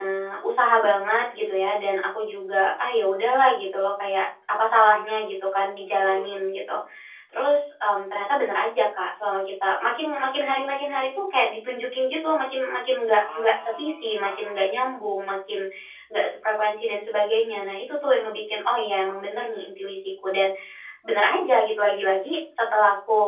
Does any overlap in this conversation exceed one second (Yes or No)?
Yes